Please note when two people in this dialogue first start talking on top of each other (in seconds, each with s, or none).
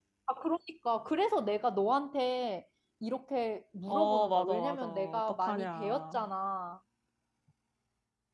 3.9 s